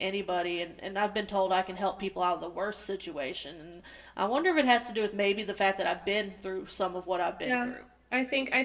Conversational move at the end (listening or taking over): taking over